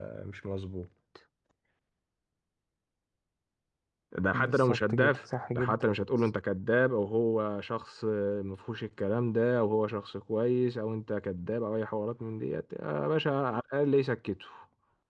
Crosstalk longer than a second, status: present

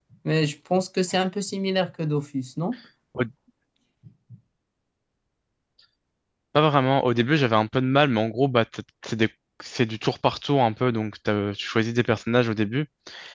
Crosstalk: none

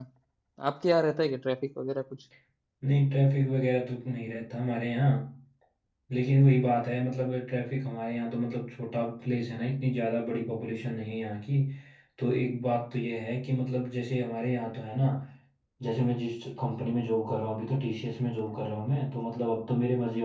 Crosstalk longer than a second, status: none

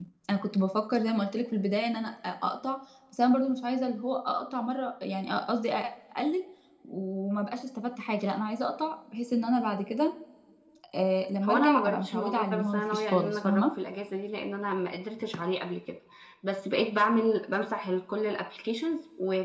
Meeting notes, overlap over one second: present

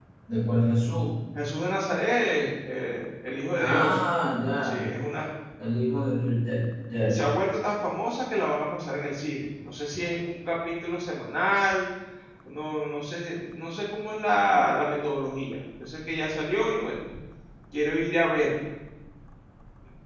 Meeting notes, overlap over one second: none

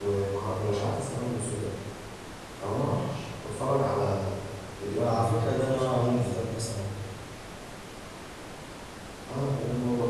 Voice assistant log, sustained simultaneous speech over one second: present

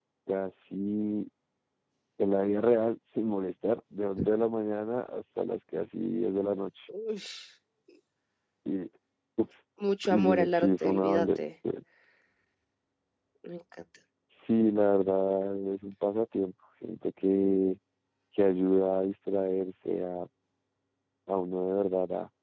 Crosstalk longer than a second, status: present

